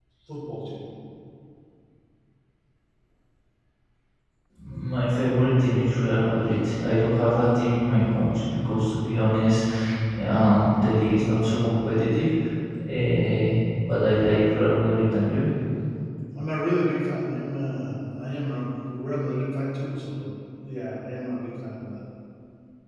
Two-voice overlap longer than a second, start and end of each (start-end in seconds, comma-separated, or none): none